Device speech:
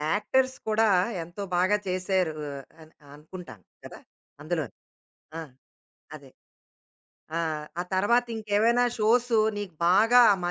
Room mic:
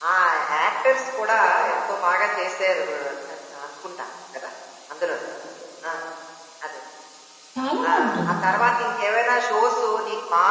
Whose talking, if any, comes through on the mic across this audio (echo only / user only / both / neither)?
both